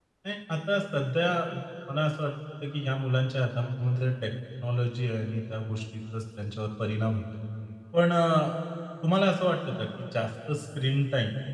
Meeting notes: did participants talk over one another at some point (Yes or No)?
No